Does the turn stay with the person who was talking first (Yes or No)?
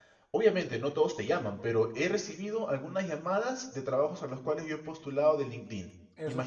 No